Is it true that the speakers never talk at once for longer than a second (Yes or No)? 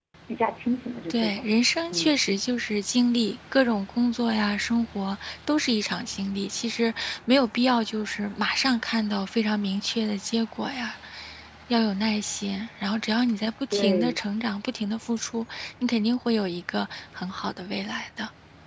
Yes